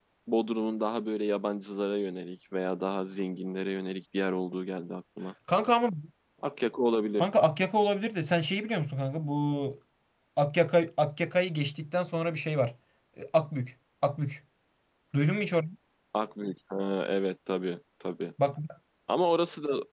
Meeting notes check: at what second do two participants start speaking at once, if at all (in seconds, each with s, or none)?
none